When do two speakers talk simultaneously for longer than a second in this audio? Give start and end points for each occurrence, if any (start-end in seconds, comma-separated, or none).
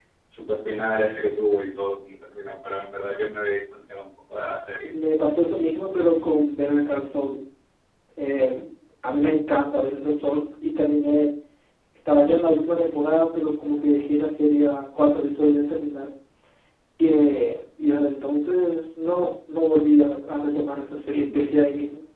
none